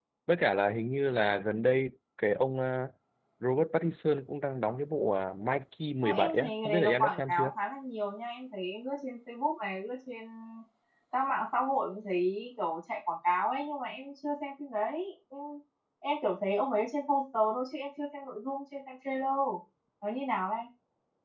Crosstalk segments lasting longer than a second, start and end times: 6.0-7.5

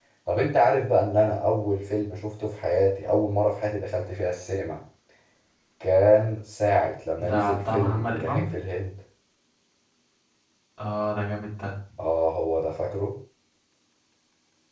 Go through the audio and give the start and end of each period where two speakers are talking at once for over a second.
7.1-8.5

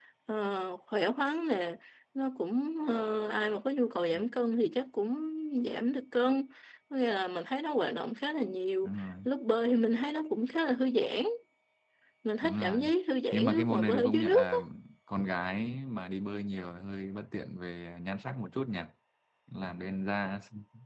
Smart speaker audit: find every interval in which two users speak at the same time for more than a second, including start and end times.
13.3-14.6

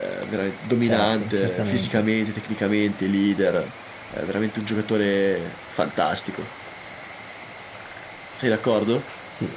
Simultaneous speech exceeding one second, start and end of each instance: 0.8-2.0

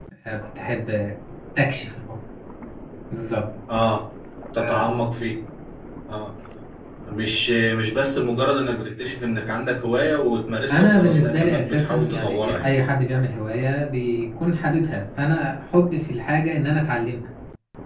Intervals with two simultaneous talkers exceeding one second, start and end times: 10.7-12.8

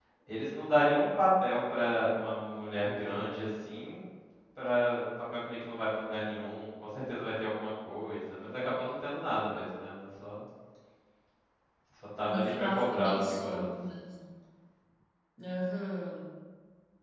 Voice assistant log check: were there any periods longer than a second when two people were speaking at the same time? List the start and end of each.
12.3-13.6

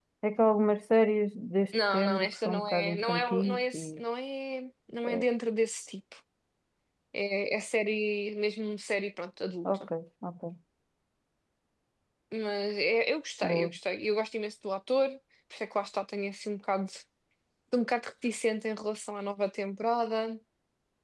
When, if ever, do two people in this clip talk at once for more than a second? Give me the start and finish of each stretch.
1.9-4.0

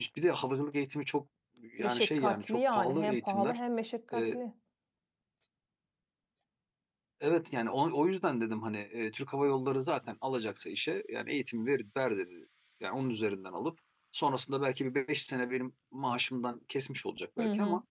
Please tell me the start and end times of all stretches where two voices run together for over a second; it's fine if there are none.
1.8-3.6

